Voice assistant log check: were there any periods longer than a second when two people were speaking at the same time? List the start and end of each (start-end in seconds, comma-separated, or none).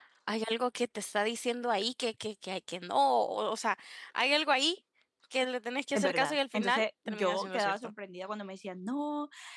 5.9-7.8